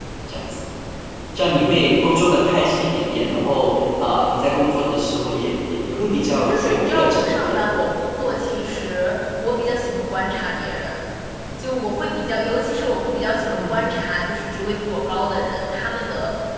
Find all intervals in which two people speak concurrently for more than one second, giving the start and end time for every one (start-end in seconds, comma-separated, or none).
6.2-7.6